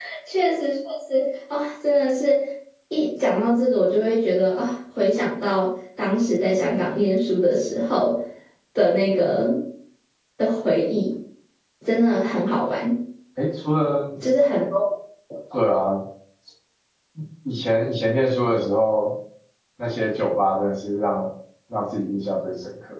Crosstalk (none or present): none